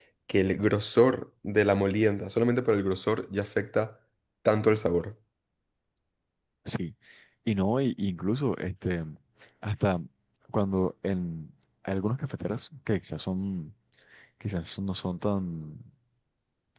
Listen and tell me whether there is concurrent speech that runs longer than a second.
No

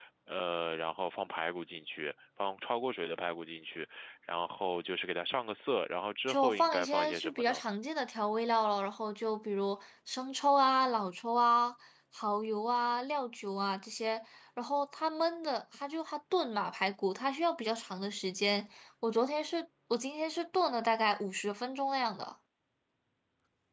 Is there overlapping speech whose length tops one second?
Yes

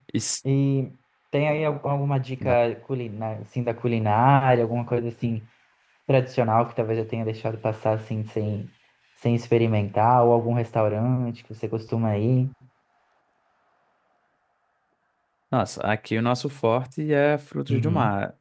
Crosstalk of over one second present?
No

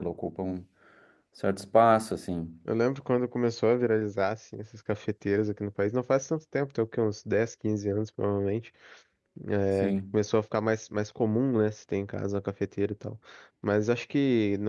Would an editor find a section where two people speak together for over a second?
No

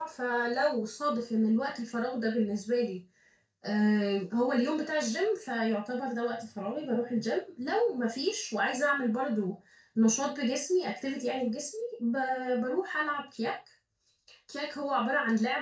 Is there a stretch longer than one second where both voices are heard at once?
No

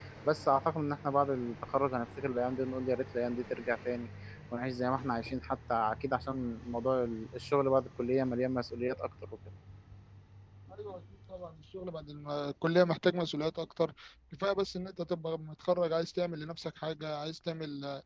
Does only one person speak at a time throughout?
Yes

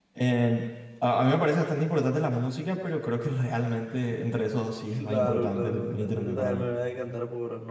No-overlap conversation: No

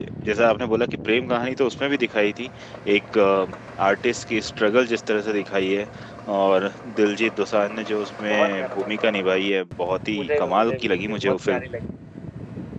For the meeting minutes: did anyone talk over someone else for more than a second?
Yes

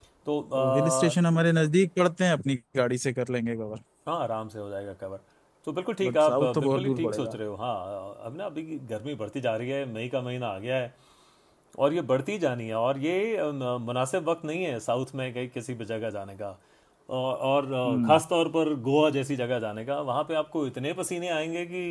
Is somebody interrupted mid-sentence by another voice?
Yes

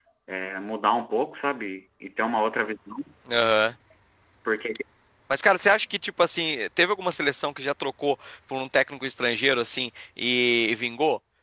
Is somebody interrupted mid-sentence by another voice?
No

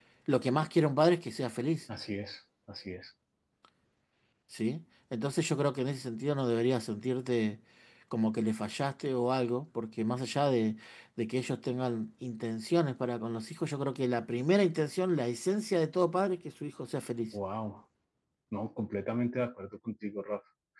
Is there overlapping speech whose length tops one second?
No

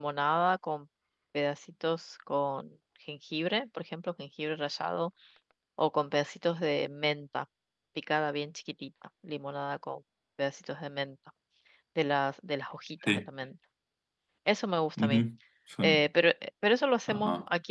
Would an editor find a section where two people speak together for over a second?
No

